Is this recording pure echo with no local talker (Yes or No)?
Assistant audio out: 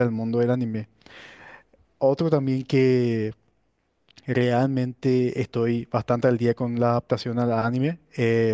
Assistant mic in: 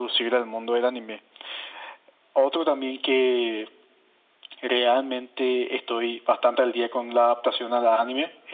Yes